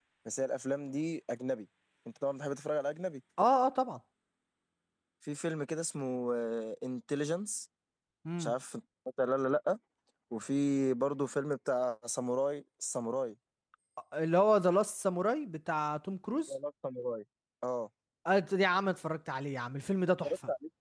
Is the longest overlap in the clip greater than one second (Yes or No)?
No